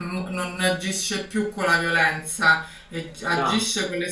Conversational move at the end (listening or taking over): listening